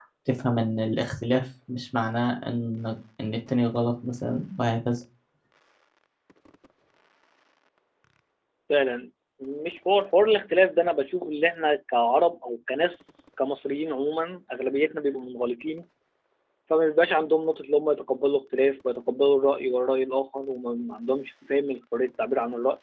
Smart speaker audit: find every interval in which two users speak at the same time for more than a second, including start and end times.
none

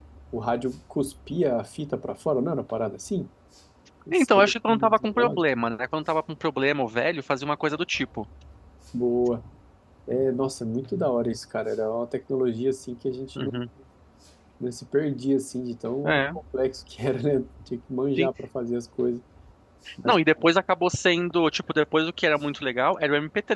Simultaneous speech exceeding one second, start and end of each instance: 4.1-5.4

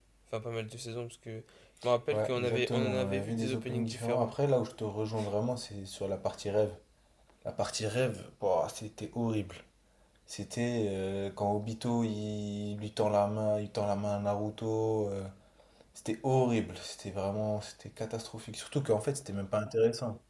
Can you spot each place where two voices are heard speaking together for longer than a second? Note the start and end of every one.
2.1-4.3

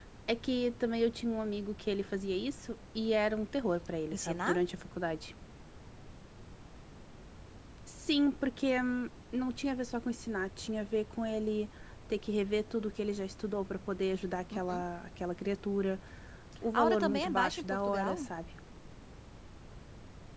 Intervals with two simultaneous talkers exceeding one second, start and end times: 16.7-18.3

